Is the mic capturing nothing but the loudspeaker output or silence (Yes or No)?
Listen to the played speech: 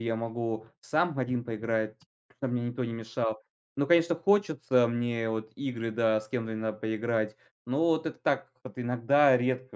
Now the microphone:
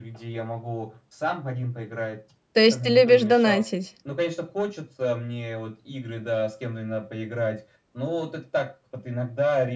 No